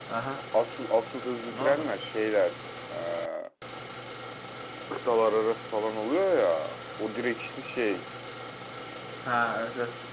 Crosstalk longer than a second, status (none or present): none